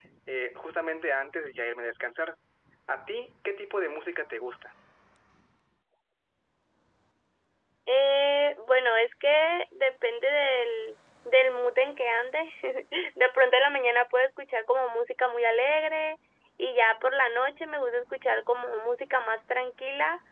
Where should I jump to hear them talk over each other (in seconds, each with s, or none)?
none